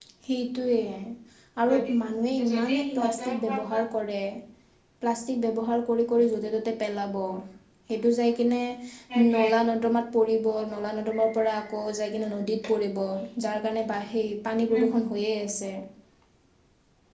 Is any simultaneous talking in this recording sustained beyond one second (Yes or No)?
Yes